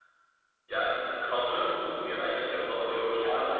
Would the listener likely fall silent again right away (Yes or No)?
No